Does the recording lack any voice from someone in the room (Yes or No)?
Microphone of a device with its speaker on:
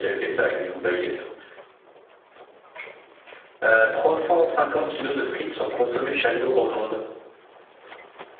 Yes